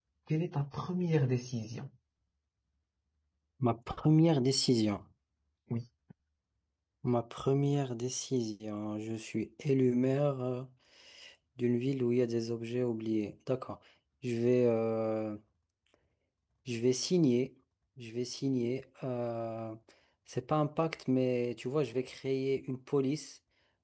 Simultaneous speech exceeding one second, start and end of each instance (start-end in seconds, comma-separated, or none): none